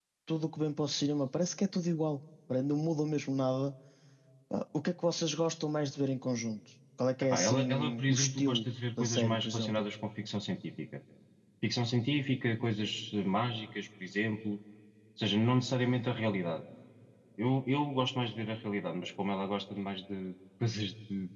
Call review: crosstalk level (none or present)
present